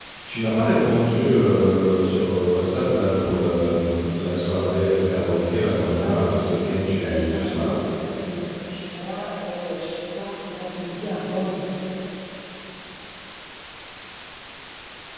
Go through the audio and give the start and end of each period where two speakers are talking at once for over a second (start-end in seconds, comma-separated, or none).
6.0-7.7